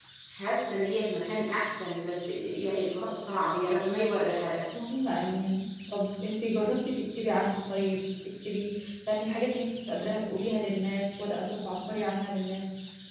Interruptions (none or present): none